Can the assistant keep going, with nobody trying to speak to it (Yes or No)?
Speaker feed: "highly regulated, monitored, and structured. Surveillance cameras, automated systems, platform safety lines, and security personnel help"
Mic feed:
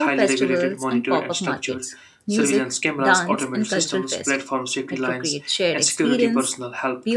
No